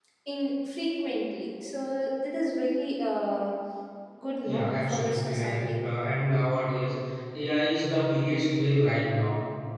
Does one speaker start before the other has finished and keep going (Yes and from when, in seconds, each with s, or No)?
Yes, from 4.4 s